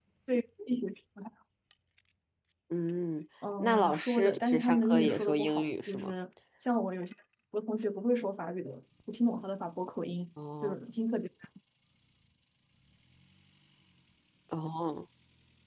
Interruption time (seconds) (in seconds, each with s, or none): 3.6 s